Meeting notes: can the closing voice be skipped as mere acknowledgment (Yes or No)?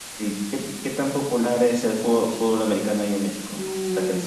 No